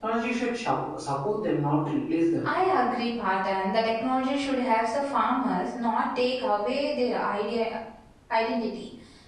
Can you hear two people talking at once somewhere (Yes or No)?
No